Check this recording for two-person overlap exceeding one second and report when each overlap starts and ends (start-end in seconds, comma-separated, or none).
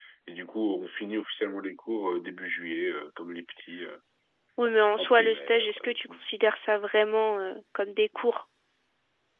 5.0-6.2